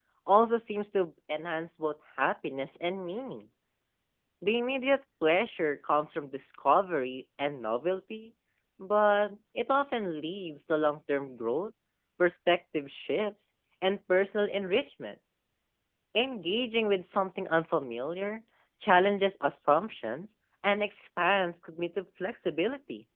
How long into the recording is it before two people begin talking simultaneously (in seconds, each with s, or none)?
none